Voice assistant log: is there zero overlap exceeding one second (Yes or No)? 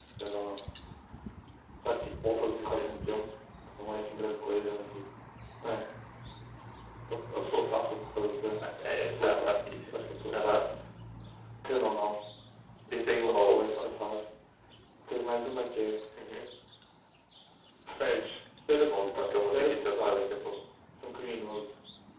No